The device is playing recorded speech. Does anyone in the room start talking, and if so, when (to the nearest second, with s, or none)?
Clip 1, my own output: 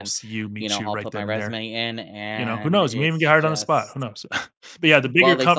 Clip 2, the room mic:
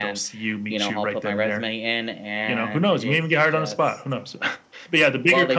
none